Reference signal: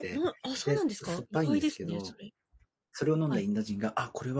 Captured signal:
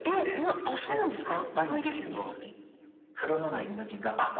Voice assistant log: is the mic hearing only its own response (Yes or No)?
Yes